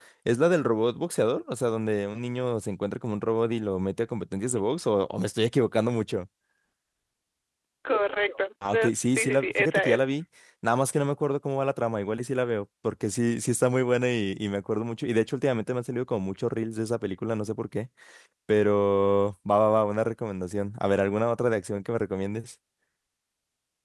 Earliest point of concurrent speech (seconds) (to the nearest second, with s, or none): 9 s